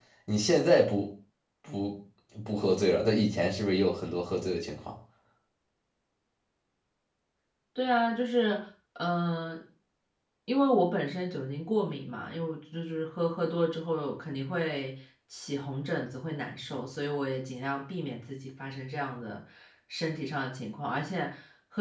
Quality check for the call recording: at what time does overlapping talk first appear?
none

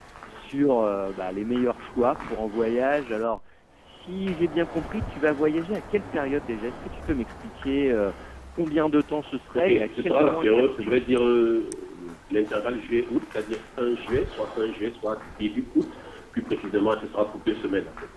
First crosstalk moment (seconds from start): 9.5 s

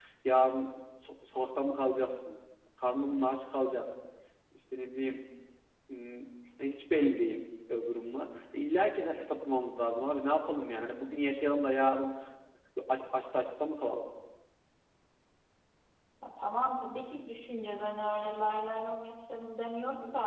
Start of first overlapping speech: none

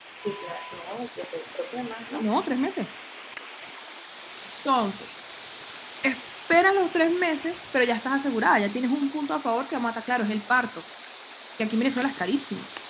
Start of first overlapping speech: none

